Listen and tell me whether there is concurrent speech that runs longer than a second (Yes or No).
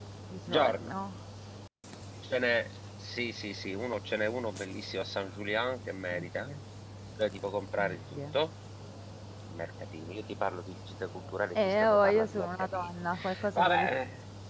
Yes